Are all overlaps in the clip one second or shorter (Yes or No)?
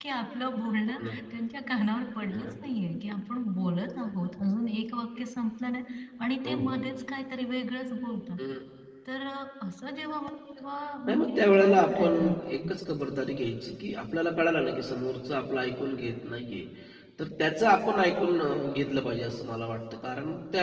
No